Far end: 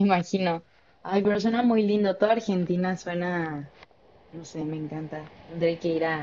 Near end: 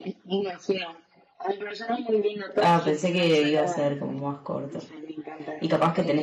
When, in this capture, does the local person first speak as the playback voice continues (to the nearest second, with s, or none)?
3 s